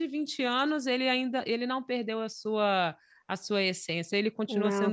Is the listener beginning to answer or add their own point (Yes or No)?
Yes